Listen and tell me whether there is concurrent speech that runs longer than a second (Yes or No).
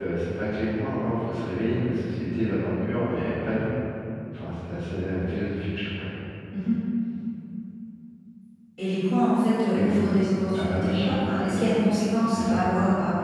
No